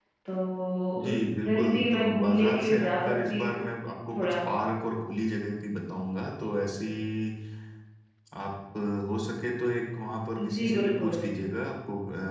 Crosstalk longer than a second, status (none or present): present